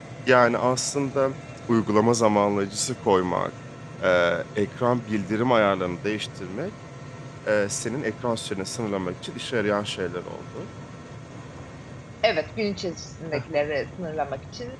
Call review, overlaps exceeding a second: none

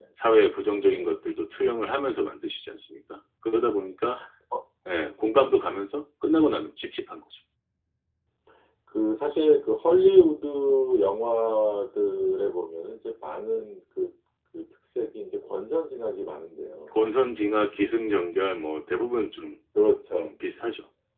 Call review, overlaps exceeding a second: none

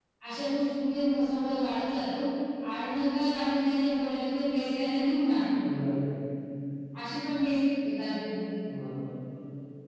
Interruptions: none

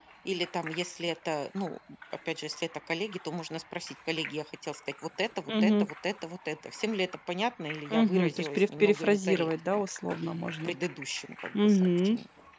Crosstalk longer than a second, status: present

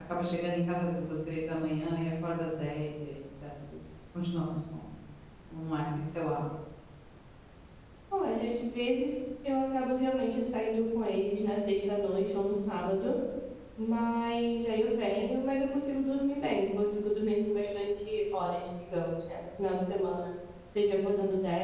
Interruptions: none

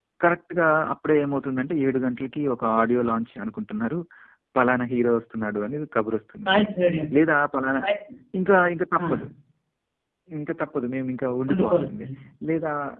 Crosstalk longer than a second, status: none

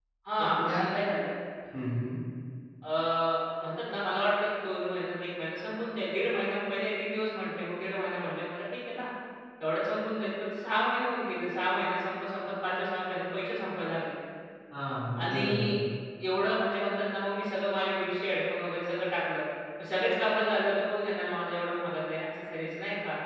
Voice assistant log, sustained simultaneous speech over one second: none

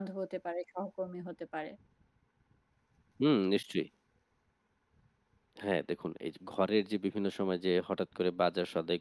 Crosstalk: none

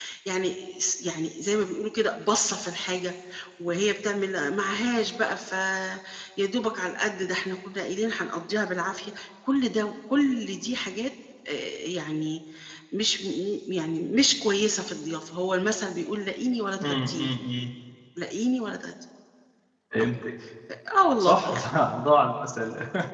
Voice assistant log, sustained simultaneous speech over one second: none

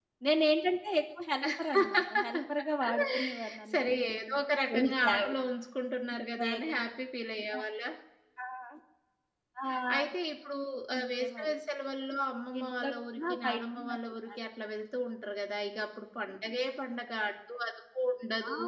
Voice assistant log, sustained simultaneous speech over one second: present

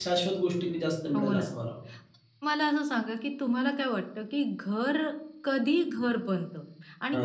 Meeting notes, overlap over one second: none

